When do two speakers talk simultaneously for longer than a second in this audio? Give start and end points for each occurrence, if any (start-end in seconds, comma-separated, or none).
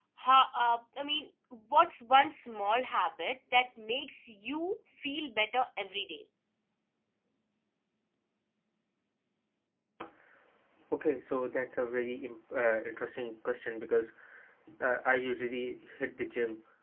none